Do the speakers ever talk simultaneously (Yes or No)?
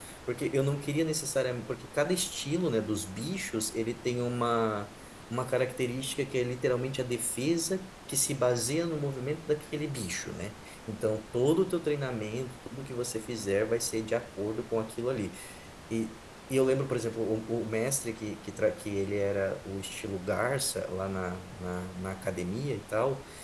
No